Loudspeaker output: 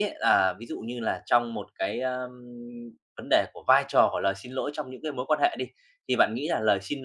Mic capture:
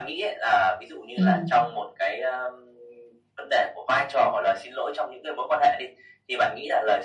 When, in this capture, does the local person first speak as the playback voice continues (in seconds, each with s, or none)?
1.2 s